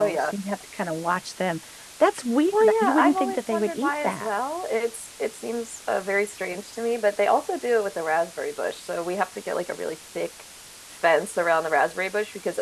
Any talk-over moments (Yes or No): Yes